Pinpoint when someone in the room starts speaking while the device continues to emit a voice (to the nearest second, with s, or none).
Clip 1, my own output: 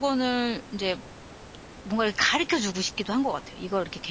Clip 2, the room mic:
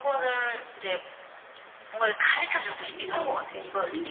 2 s